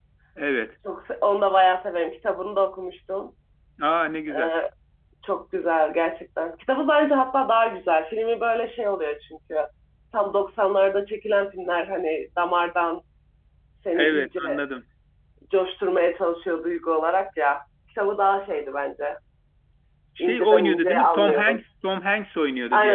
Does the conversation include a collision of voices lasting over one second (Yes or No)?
Yes